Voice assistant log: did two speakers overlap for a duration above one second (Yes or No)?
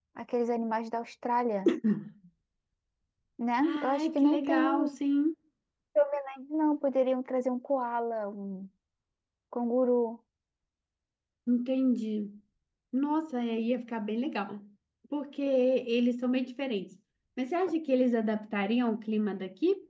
Yes